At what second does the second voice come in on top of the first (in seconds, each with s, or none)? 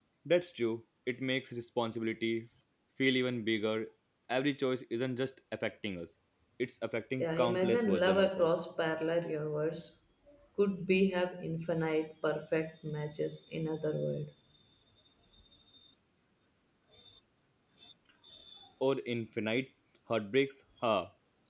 7.2 s